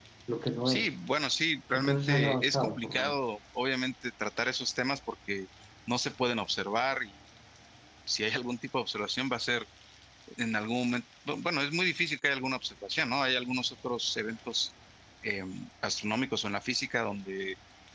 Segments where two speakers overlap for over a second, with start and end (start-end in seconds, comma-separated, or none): 1.7-3.2